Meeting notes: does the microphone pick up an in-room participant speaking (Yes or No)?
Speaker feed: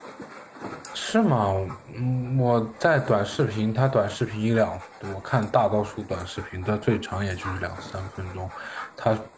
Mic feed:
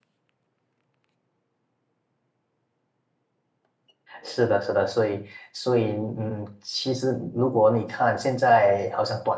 Yes